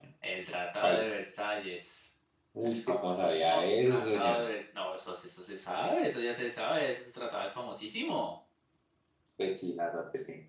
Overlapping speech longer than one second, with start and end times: 2.6-4.4

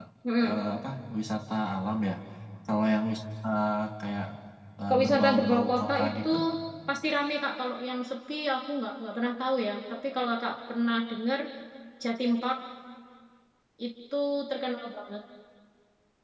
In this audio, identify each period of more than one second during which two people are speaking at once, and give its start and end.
4.9-6.3

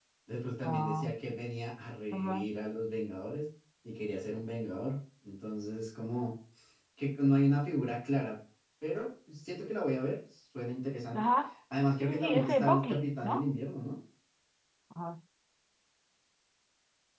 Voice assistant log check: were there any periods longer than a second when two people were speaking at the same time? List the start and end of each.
12.0-13.5

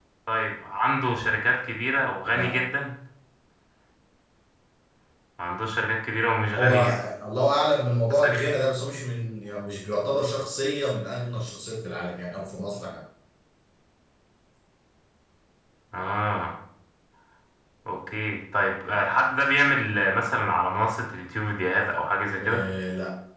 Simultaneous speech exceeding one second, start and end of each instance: none

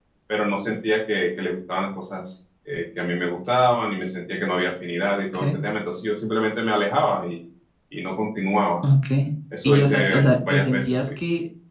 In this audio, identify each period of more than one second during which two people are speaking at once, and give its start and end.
9.6-11.1

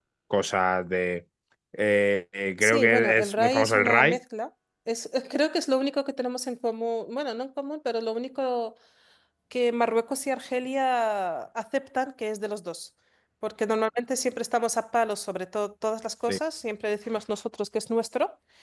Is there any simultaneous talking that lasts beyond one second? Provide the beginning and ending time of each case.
2.6-4.2

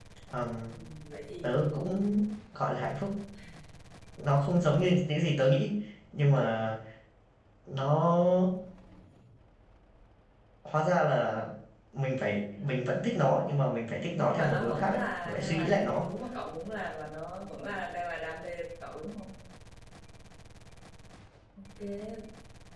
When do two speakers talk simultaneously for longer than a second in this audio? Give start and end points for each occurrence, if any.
14.2-16.1

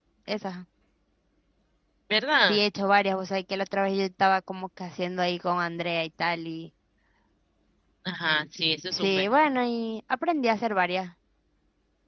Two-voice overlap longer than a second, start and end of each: none

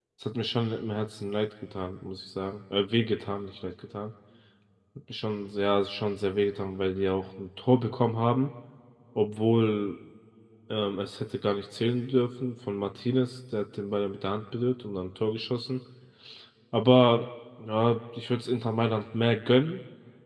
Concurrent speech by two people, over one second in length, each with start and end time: none

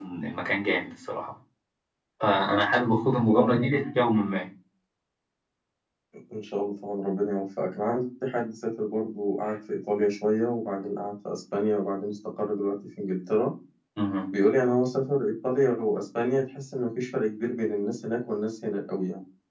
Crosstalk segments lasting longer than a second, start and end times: none

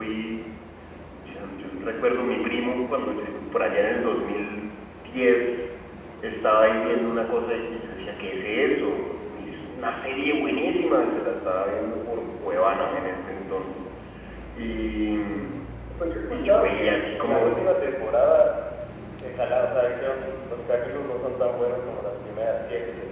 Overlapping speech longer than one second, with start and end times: 16.3-17.5

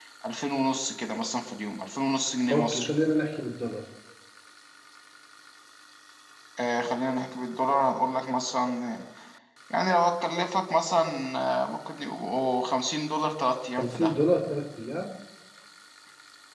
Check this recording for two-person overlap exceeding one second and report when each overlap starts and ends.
none

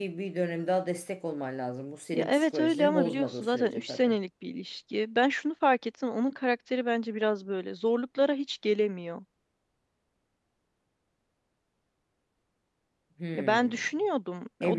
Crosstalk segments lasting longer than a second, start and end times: 2.1-4.2

